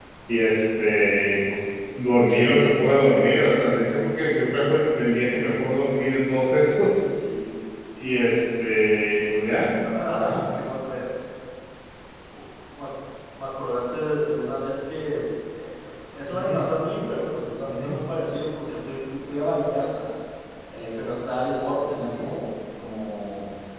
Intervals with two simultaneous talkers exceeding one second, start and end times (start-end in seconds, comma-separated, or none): none